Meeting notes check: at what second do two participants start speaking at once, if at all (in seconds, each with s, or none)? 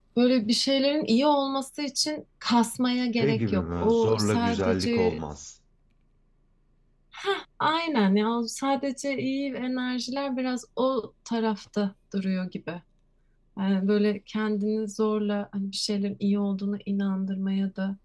3.2 s